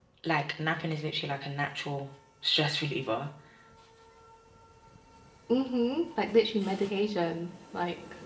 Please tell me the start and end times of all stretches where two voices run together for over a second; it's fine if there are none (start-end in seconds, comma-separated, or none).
none